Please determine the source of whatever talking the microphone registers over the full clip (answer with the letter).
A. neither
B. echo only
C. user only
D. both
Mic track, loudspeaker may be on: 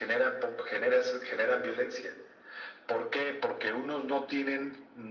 B